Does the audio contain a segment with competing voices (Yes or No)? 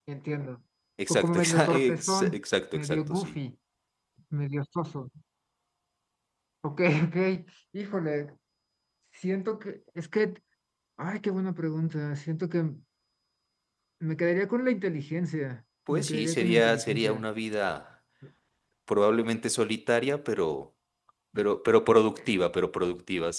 Yes